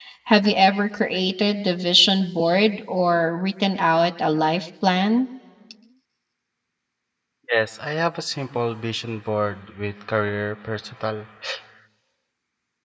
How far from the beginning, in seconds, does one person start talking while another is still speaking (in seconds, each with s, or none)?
none